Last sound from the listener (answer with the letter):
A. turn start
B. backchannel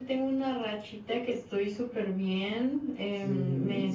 B